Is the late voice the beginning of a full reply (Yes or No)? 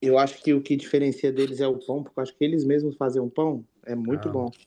Yes